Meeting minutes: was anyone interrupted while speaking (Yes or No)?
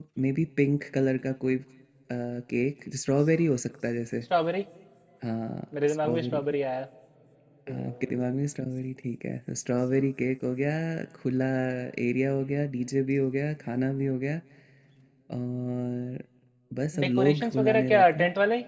Yes